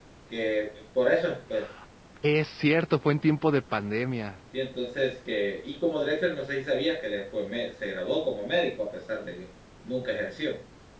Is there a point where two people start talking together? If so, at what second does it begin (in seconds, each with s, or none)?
none